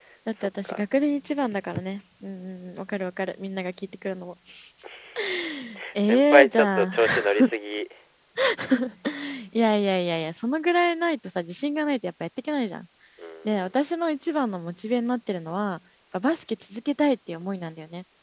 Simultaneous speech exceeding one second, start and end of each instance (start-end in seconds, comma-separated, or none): 6.0-7.3